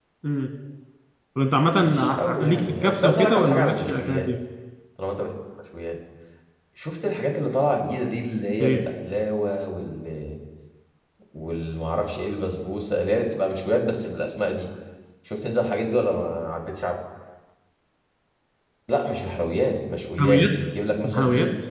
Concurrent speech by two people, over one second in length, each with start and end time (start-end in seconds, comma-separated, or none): 1.8-4.3